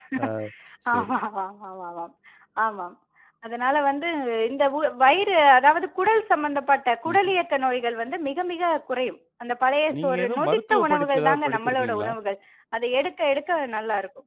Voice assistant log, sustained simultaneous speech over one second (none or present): present